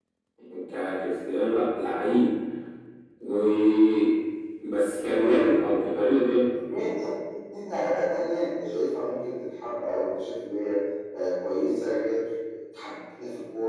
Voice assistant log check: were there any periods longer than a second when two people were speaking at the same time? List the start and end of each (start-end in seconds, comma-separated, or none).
none